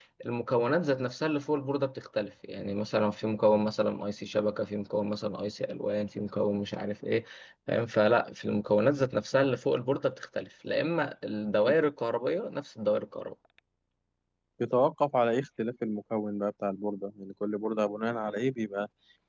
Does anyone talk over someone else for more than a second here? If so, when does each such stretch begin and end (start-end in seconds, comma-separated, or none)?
none